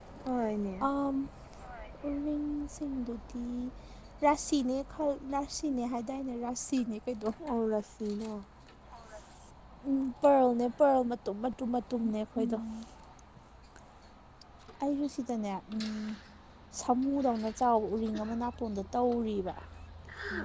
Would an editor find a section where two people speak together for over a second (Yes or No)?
No